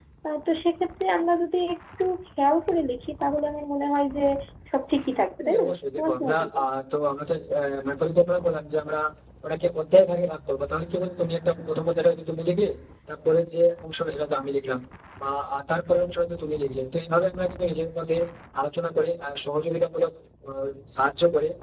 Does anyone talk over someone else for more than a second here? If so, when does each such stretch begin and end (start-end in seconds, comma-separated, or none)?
5.4-6.6